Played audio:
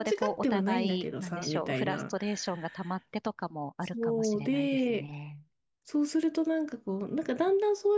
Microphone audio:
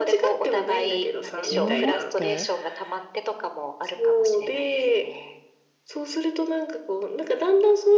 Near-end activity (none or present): present